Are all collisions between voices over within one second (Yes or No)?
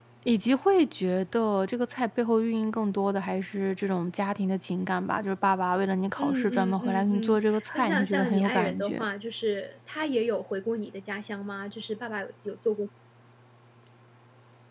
No